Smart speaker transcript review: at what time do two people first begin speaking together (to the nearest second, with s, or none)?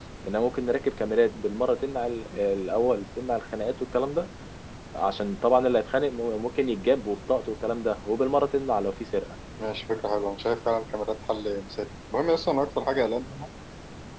none